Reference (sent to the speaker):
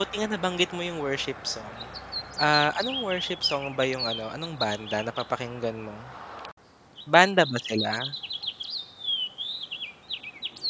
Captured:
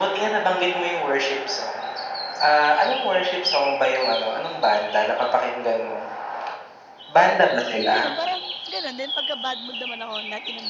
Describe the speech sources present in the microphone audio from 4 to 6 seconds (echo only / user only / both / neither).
echo only